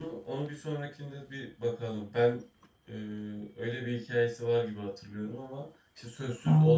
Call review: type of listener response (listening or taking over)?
listening